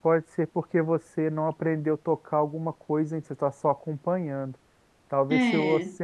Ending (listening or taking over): listening